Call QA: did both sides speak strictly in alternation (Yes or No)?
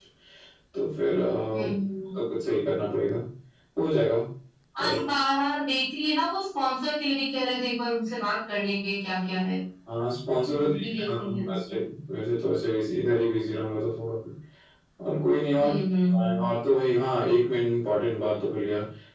No